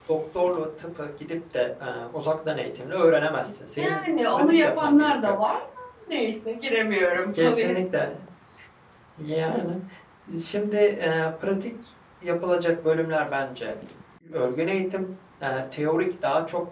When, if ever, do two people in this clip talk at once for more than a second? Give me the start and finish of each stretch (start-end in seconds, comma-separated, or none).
3.8-5.3